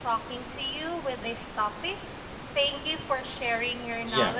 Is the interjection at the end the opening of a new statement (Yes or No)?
Yes